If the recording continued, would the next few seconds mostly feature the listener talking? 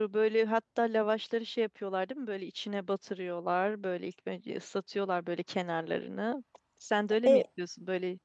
No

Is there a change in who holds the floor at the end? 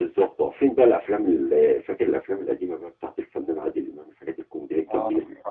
Yes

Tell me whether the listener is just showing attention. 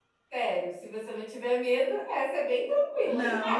No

